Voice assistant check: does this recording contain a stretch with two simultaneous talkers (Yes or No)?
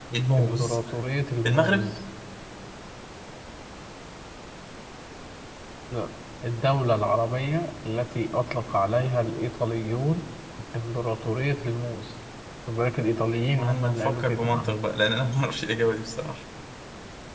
Yes